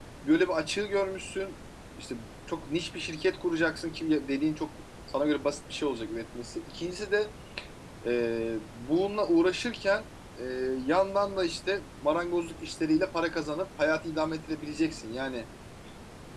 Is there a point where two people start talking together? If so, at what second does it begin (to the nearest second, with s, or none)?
none